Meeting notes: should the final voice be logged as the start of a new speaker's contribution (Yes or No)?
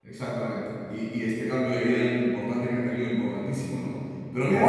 No